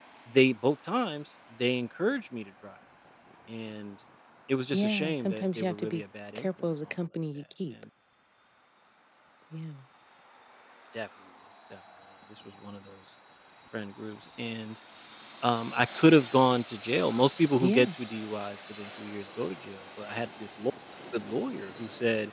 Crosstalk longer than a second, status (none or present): present